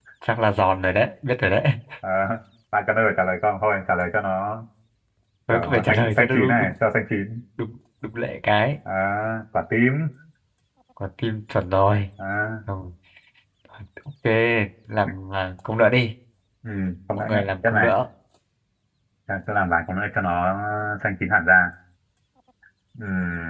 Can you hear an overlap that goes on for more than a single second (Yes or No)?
Yes